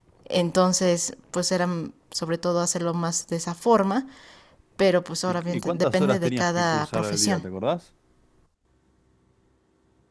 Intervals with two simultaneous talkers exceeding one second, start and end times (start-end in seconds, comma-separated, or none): 5.2-7.4